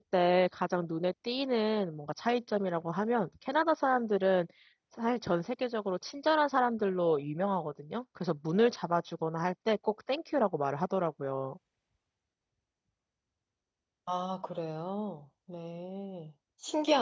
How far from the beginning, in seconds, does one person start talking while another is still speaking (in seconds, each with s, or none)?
none